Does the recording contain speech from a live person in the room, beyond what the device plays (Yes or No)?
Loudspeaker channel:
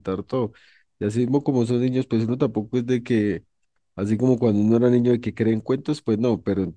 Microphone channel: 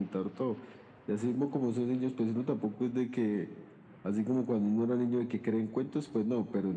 No